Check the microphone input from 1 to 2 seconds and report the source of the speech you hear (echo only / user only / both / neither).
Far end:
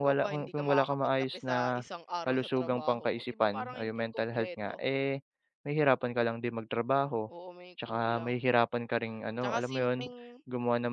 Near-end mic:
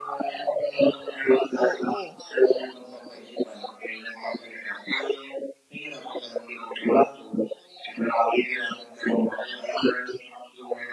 both